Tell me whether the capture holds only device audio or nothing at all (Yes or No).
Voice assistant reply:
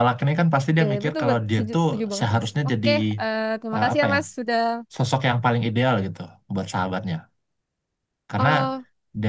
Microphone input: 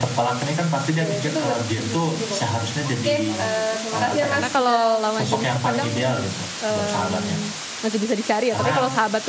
No